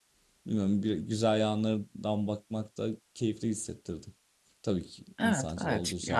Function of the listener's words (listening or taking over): taking over